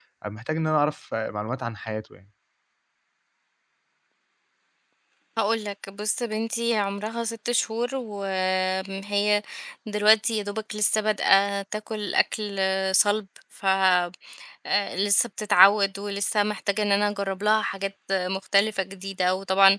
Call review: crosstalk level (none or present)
none